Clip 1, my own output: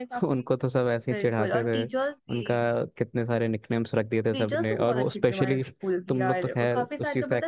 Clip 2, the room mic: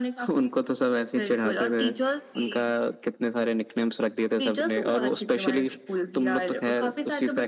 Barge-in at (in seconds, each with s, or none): none